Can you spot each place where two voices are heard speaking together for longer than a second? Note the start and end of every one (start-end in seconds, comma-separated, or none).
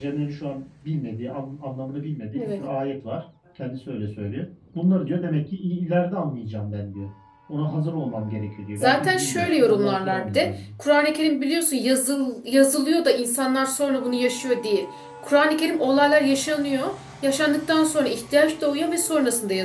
8.8-10.5